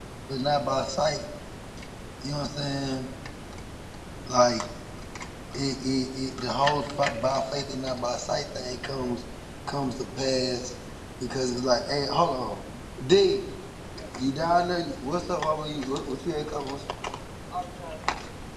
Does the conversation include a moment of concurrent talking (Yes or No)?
No